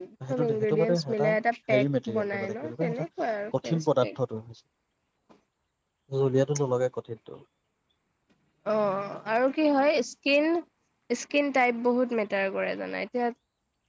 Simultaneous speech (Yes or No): Yes